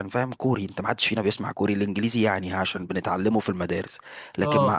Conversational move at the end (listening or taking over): listening